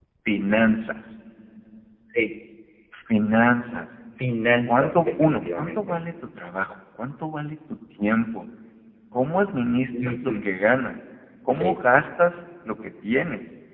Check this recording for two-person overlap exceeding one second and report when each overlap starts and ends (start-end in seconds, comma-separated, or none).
4.7-6.0